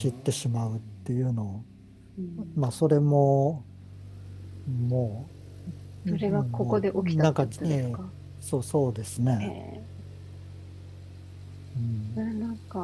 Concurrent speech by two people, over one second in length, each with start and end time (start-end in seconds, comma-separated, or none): 6.1-8.0